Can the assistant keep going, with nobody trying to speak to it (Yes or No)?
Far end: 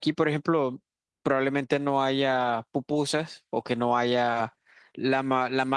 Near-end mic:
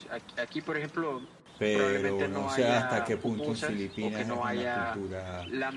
No